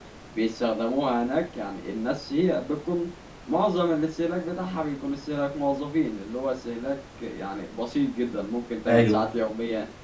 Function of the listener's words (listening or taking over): listening